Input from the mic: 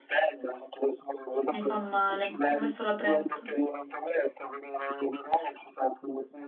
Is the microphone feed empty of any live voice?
No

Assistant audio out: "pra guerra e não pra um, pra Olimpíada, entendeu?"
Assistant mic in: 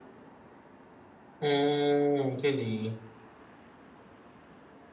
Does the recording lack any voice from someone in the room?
No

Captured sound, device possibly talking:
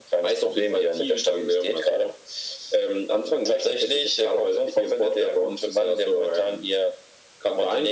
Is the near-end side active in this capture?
No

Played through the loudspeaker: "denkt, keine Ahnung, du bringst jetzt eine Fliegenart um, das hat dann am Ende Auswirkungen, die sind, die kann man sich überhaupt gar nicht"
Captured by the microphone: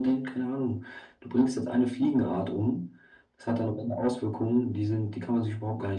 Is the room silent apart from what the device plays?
Yes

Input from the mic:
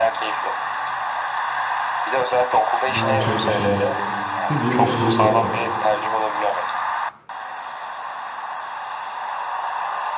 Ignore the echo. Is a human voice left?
Yes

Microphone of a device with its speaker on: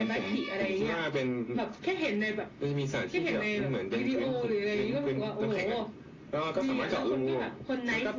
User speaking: No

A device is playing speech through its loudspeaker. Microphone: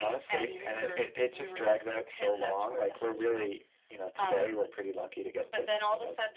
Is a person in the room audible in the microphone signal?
No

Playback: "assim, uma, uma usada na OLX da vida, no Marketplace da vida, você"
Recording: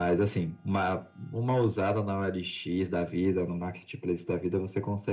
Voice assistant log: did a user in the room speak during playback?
No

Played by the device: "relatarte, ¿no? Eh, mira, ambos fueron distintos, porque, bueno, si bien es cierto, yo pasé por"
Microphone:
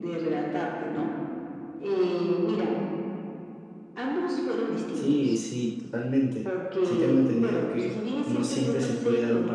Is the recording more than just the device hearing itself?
Yes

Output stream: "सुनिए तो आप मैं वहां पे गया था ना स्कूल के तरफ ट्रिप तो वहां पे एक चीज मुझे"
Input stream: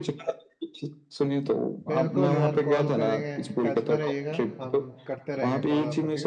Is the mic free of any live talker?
No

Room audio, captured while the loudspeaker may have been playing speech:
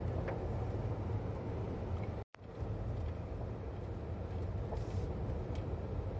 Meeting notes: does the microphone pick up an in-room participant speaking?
No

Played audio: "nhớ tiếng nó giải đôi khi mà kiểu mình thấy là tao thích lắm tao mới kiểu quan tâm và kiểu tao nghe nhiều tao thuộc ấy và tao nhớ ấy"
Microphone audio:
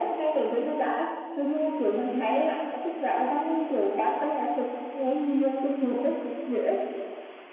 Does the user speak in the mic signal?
No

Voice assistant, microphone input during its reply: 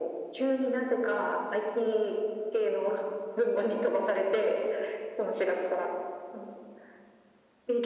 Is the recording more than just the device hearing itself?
No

